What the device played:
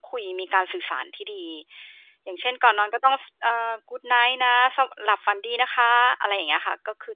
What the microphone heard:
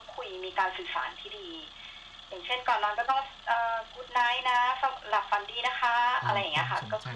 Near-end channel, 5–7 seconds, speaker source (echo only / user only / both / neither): both